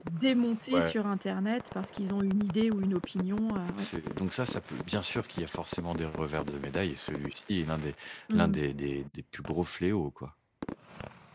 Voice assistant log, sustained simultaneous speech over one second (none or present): none